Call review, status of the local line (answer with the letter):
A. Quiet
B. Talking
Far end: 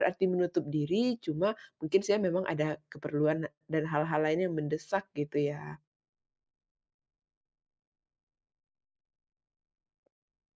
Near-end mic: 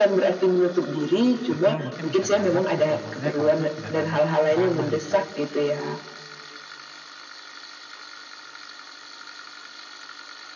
B